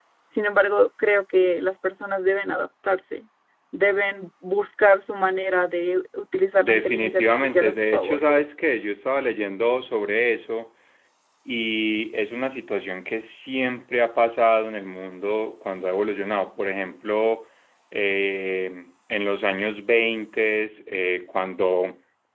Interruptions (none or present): present